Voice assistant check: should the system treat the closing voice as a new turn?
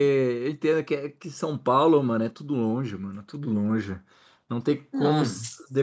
No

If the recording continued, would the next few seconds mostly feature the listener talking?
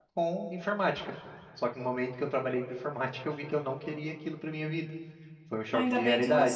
Yes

